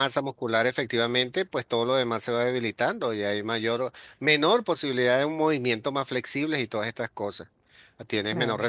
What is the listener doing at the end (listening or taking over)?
listening